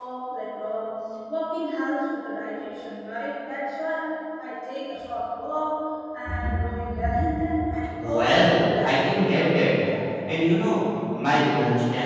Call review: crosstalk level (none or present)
present